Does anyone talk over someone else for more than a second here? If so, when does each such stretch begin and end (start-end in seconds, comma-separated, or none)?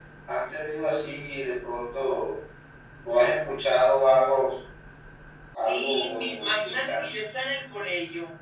5.5-7.1